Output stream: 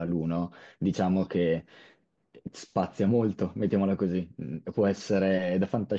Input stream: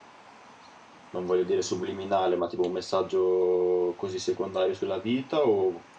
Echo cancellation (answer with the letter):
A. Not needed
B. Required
A